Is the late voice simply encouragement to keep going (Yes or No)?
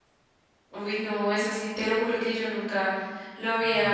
Yes